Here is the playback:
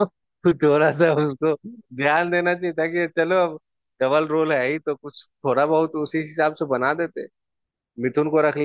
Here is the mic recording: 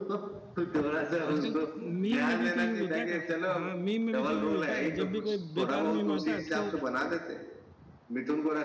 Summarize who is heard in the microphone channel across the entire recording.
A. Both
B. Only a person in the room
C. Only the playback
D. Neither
A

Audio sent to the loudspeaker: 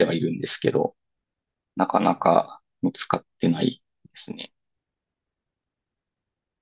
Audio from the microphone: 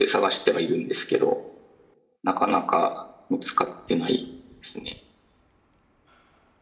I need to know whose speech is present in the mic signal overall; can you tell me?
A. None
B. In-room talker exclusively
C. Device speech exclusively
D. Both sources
C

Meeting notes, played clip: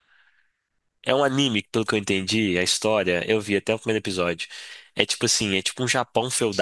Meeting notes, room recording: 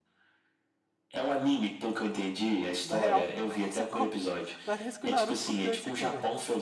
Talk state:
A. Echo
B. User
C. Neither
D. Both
D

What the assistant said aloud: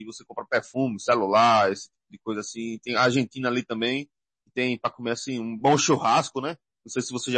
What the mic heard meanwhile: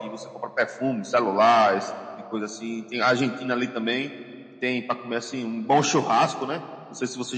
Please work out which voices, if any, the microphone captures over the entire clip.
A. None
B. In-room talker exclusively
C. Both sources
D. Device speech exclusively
D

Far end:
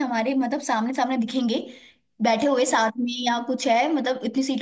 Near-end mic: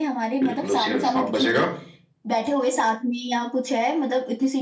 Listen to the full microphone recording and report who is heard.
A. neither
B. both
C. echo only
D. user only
B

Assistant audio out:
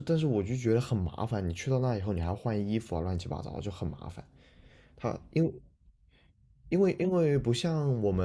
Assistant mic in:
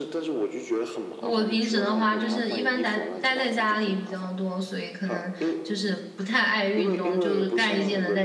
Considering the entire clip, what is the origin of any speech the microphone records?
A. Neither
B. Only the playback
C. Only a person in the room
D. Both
D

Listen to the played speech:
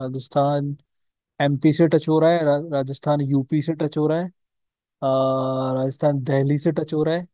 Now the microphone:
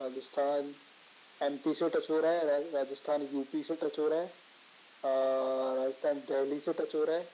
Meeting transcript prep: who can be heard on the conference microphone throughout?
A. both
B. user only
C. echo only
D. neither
C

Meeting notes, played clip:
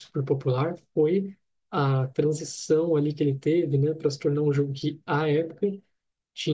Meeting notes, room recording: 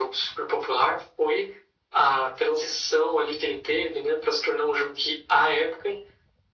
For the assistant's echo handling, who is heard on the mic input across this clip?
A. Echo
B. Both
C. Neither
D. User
A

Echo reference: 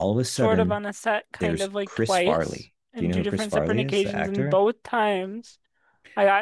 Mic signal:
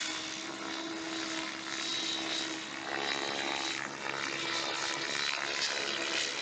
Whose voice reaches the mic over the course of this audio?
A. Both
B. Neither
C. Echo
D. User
B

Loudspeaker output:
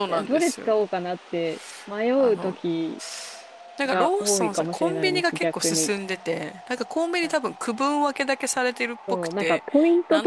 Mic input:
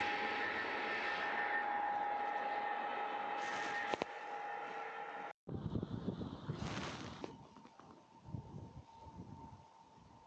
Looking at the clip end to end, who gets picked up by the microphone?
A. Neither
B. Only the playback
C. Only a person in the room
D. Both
A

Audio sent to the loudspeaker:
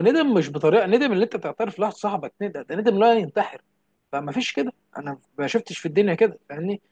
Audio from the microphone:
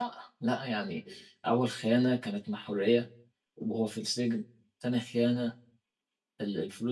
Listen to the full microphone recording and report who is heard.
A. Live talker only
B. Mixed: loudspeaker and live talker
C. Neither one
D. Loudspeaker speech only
A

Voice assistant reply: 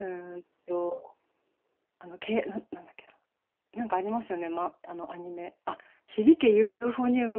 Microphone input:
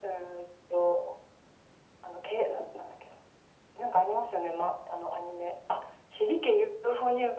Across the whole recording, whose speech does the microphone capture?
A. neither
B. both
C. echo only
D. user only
C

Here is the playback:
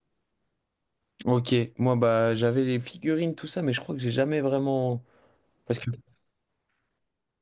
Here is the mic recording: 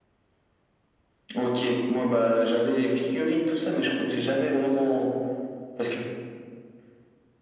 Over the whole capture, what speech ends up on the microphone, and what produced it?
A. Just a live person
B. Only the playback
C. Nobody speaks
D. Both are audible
B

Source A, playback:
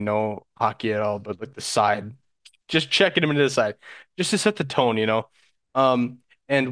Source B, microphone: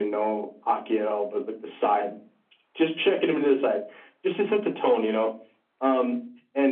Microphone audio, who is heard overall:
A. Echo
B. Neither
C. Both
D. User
A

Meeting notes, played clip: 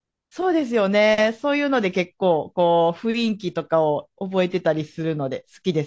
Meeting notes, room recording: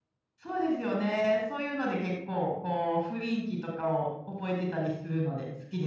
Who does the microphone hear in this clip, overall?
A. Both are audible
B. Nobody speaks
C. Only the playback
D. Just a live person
C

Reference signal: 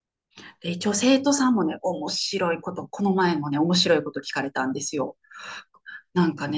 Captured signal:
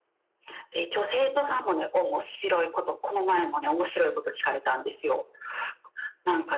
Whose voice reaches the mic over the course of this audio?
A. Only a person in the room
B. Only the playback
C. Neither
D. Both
B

